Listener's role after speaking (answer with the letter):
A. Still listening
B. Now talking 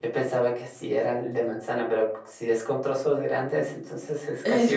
B